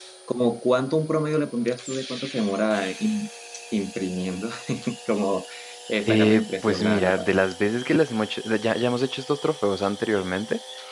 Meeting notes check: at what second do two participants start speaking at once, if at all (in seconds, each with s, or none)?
6.1 s